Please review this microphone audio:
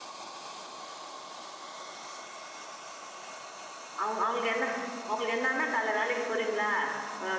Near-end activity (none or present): present